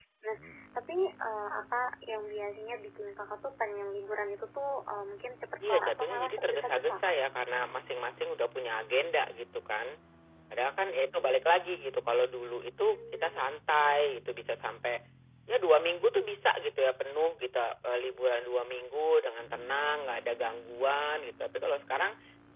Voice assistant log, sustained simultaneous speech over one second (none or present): present